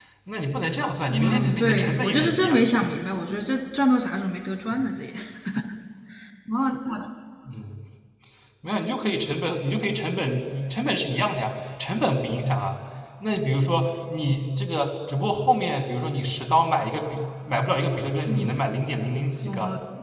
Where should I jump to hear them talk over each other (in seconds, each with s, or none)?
1.1 s